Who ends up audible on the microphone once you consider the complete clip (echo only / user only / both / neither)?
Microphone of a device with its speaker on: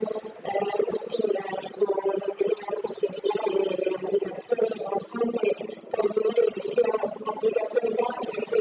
echo only